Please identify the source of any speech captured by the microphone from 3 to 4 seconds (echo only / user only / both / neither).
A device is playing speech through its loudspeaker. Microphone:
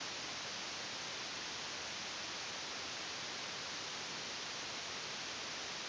neither